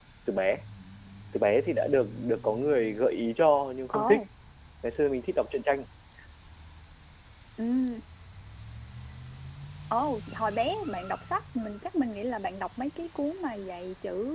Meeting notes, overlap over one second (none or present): none